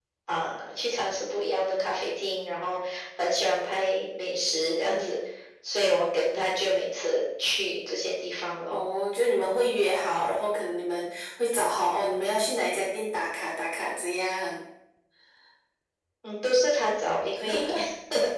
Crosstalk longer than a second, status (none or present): none